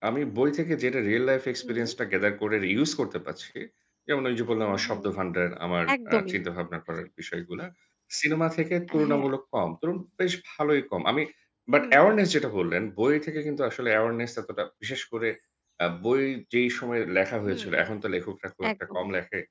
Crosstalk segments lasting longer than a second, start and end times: none

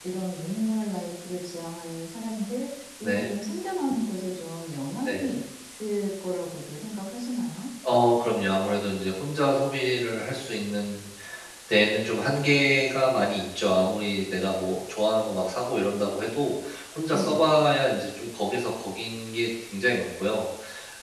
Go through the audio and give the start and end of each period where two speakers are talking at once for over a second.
none

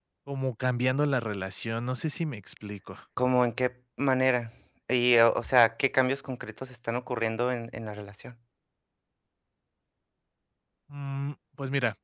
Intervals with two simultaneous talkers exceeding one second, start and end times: none

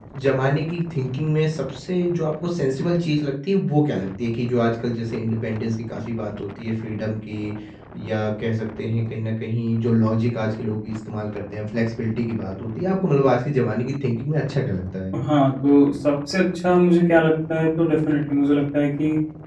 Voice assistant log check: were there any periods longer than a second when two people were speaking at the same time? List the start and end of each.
none

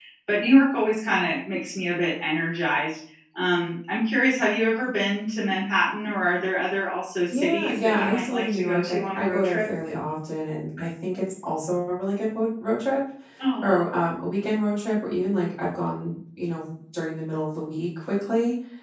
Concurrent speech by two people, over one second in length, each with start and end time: 7.3-9.7

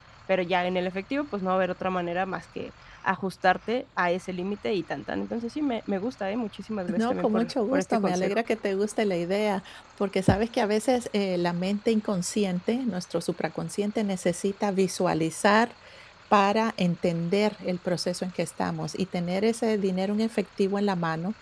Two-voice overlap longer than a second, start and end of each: 7.0-8.4

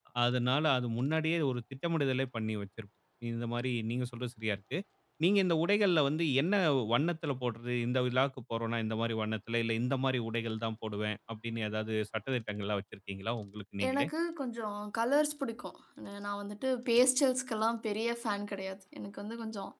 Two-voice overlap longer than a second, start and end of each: none

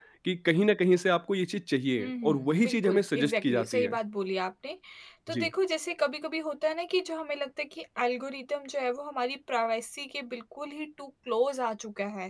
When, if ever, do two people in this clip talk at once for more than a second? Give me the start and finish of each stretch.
2.0-4.0

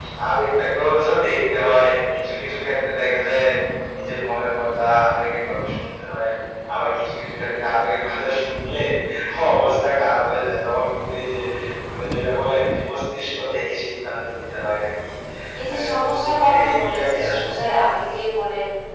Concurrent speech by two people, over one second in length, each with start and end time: 15.7-17.6

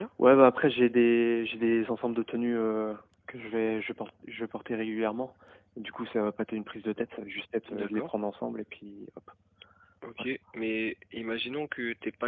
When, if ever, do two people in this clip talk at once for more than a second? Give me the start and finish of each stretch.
none

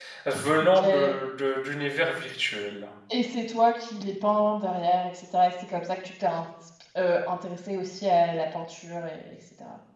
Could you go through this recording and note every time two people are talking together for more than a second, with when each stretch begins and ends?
none

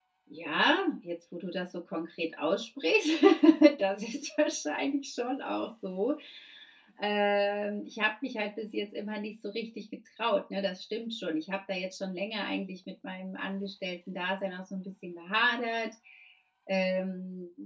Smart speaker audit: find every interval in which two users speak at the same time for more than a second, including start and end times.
none

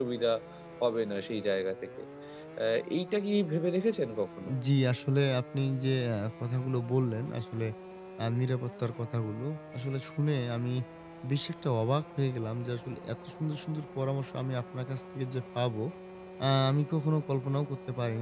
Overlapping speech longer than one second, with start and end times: none

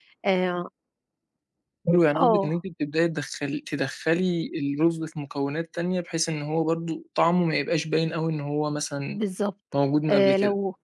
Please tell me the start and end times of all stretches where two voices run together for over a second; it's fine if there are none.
none

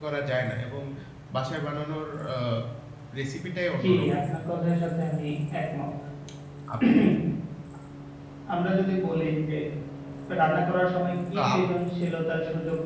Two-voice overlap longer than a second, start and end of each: none

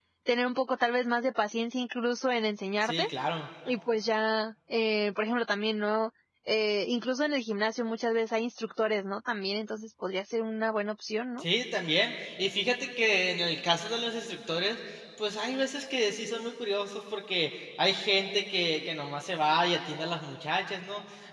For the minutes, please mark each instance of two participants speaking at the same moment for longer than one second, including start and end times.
none

